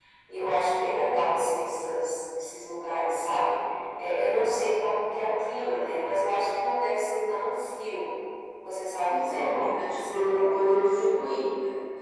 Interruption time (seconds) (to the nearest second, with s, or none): 9 s